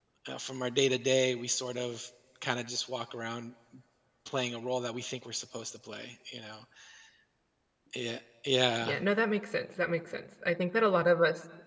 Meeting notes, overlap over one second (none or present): none